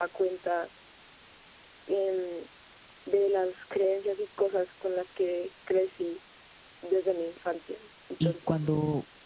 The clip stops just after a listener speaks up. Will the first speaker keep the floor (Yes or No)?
No